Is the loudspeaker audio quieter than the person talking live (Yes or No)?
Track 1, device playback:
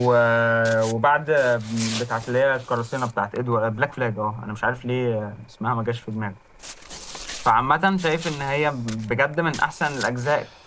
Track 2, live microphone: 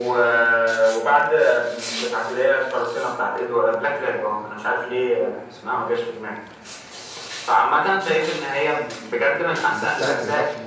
No